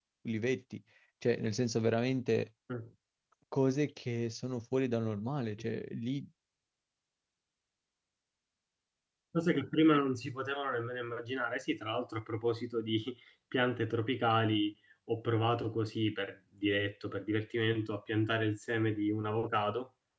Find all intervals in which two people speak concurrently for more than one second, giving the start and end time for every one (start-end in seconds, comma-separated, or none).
none